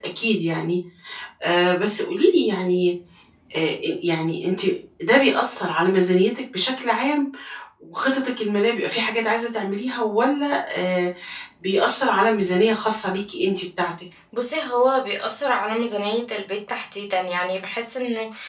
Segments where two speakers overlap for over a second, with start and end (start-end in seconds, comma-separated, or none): none